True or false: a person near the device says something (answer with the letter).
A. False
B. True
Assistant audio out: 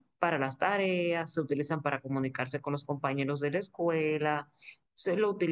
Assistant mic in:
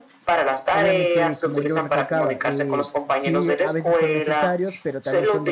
B